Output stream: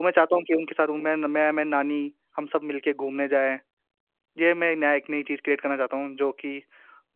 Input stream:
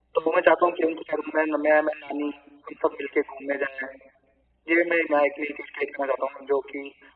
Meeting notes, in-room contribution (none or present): none